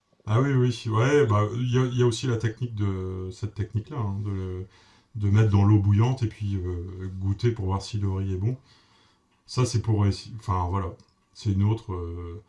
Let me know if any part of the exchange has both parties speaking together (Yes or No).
No